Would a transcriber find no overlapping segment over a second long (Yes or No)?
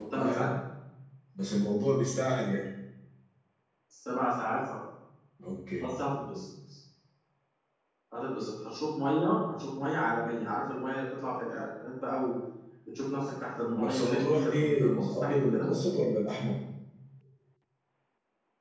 No